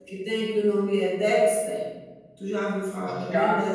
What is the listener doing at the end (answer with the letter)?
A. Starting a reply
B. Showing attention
A